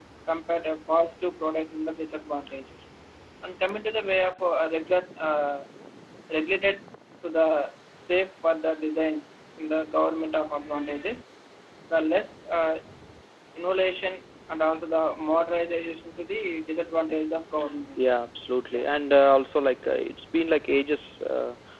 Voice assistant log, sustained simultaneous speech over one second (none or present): none